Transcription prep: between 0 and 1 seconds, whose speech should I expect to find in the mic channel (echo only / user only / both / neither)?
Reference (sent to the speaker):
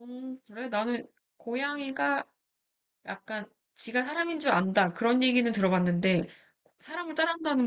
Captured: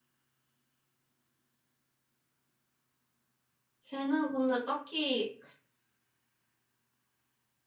neither